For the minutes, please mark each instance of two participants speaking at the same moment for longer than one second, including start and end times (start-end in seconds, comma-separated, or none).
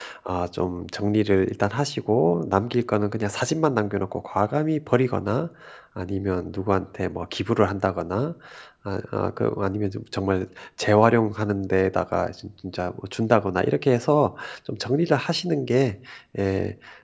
none